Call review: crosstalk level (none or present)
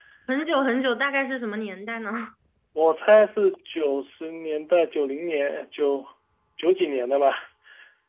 none